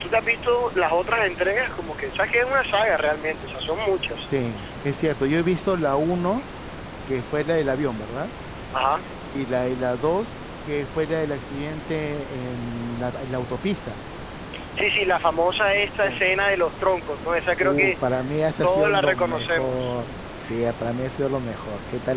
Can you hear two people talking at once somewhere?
Yes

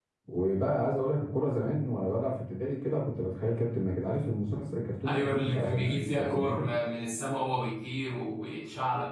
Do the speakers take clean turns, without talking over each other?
No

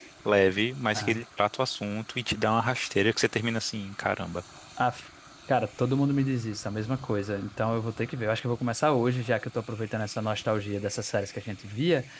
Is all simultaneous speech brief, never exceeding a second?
Yes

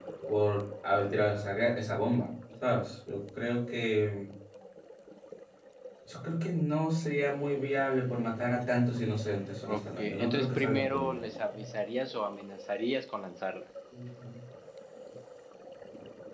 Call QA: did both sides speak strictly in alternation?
No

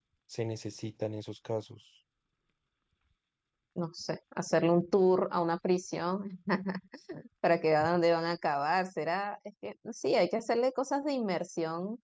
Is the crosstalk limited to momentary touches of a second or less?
Yes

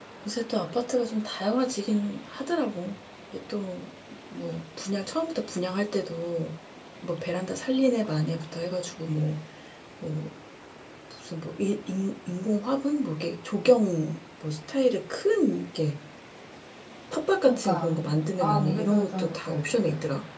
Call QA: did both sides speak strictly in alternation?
No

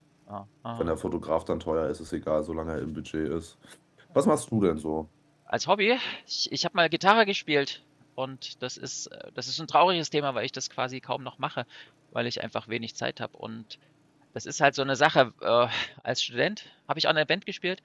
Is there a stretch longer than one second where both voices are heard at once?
No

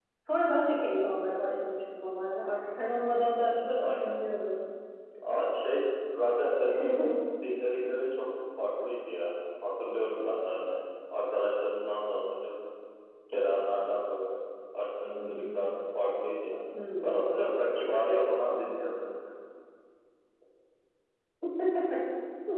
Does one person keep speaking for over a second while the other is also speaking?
No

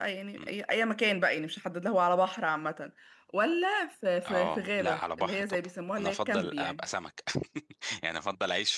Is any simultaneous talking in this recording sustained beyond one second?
Yes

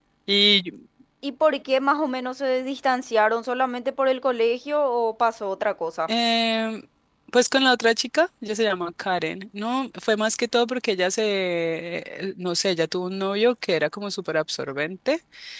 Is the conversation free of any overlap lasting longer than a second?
Yes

